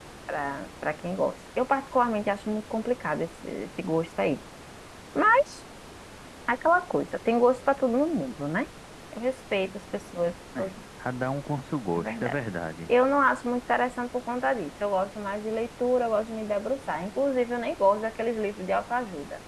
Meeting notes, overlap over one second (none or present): none